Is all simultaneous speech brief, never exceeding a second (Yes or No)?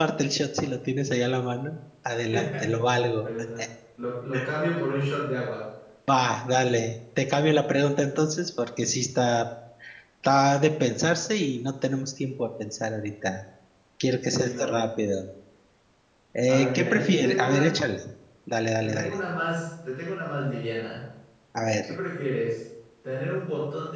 No